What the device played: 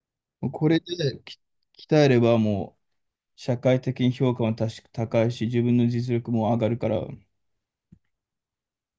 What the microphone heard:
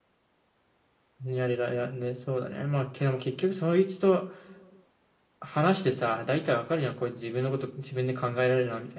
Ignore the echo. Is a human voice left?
Yes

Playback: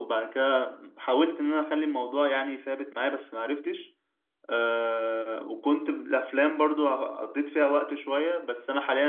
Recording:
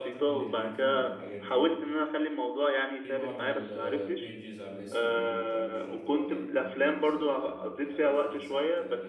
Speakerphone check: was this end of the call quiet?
No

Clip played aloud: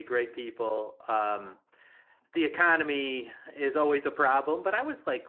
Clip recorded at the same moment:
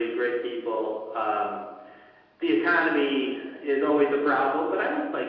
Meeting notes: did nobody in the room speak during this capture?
Yes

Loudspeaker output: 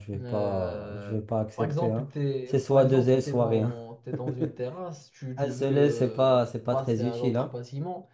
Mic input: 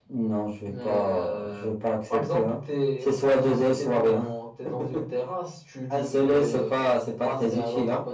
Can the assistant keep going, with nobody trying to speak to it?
Yes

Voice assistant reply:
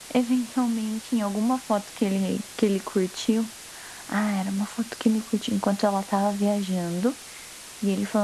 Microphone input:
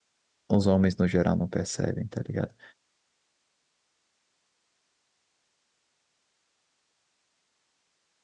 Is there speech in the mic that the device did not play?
Yes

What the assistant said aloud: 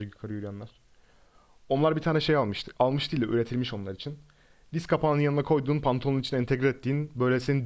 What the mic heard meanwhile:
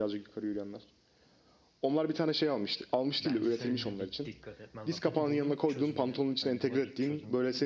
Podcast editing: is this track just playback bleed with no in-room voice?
No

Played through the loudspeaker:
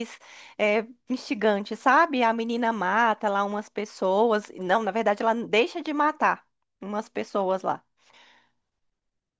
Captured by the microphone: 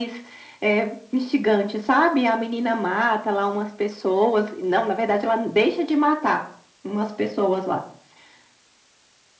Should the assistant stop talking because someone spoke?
No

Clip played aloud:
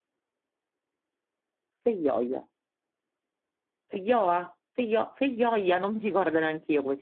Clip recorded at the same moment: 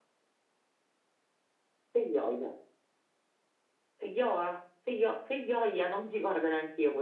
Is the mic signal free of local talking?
Yes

